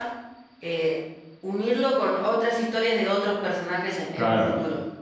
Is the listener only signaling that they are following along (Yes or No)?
No